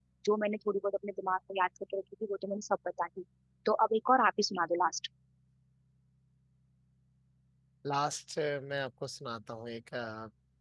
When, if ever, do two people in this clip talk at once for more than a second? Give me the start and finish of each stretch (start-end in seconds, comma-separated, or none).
none